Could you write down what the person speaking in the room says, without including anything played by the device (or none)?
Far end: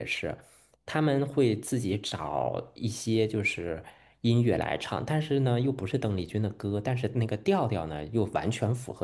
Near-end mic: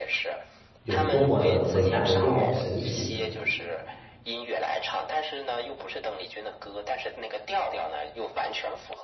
有多么的伟大，有多么的神奇。